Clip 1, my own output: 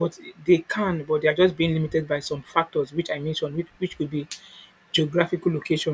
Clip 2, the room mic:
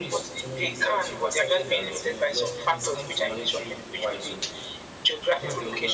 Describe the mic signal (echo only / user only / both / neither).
both